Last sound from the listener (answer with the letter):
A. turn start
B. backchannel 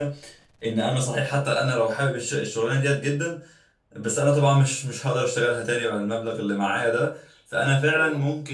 B